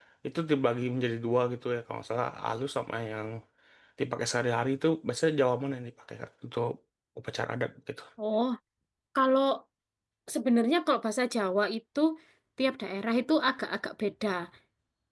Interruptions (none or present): none